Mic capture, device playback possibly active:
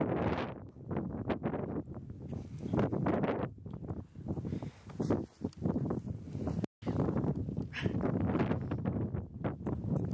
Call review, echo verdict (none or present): none